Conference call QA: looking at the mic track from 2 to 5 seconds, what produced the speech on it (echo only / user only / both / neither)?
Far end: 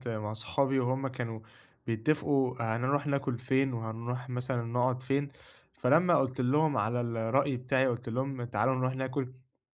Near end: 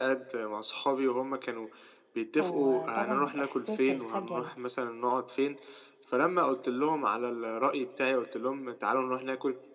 both